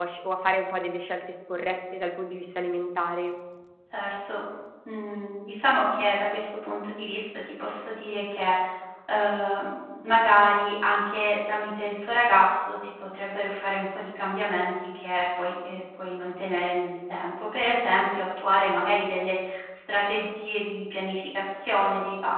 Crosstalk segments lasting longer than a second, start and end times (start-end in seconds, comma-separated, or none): none